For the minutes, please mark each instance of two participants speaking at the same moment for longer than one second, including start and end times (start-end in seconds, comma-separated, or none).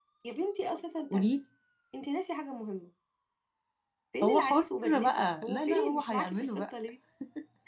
4.2-6.7